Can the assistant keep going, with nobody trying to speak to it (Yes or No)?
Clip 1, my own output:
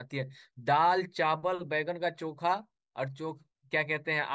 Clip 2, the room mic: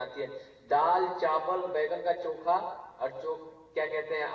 Yes